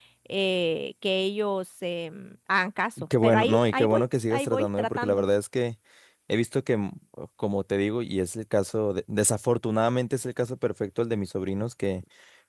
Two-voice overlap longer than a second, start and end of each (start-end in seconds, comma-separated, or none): 3.2-5.2